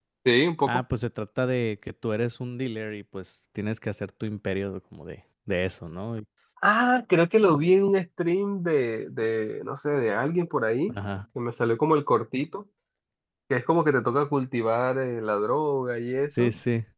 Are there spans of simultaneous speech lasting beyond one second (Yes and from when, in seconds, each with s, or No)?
No